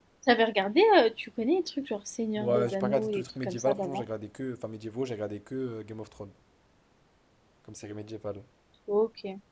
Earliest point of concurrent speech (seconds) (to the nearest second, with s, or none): 2 s